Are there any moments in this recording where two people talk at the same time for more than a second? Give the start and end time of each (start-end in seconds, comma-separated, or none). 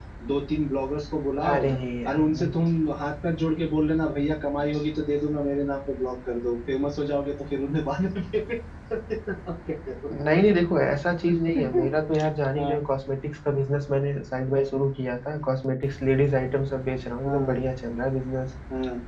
none